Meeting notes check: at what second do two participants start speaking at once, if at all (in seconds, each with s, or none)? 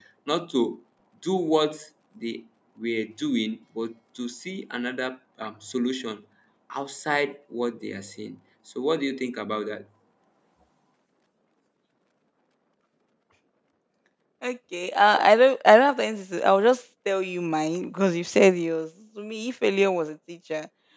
none